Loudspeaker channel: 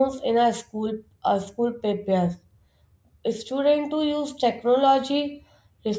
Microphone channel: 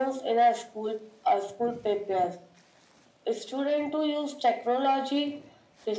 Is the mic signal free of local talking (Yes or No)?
Yes